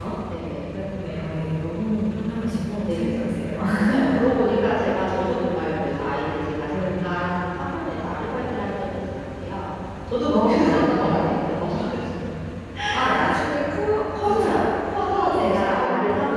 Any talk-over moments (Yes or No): Yes